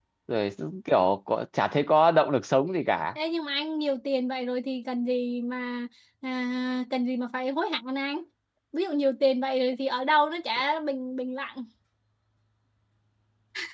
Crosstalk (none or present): none